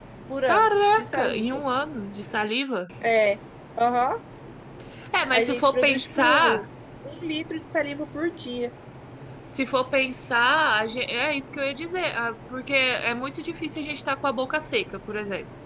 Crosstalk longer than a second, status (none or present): present